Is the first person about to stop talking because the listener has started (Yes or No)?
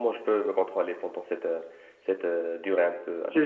Yes